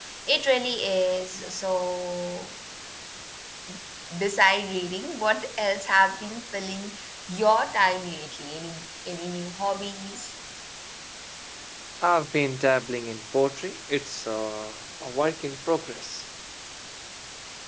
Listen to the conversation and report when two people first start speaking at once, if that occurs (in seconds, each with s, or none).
none